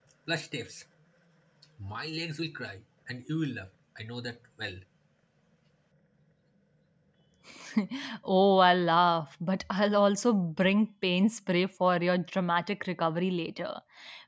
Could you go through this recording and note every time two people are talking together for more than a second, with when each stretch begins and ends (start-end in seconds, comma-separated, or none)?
none